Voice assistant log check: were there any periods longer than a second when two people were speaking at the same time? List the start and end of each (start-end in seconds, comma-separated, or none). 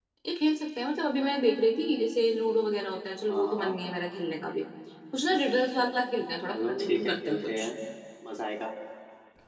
6.5-7.7